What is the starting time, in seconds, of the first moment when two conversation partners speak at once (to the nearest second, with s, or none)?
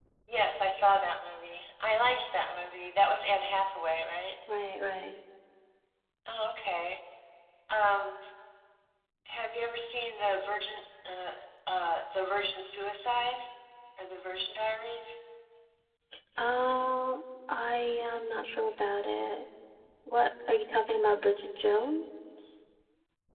none